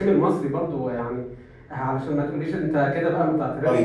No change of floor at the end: No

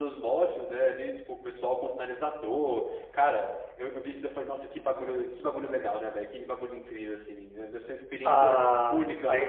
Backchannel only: No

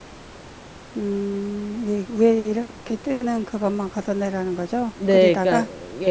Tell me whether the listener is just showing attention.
No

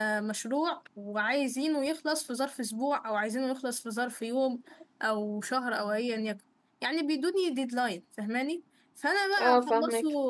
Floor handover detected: No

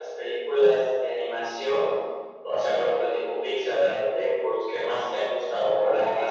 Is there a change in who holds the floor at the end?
Yes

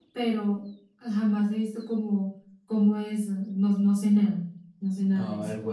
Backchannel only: No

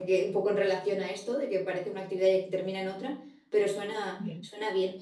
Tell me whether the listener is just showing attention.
No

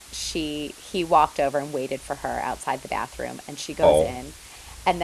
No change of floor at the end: Yes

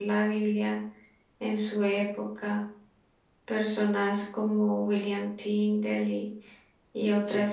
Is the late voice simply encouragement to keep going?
Yes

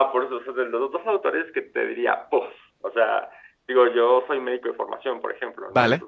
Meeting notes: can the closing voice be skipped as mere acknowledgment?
Yes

